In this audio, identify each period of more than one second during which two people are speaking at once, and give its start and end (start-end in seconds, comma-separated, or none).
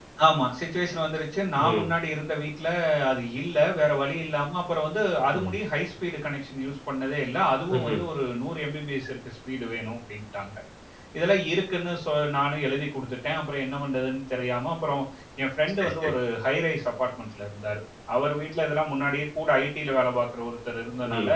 none